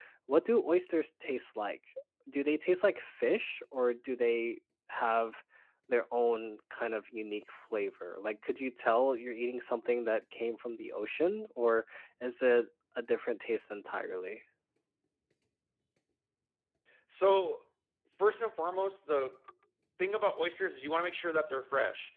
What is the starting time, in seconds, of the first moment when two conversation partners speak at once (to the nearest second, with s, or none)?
none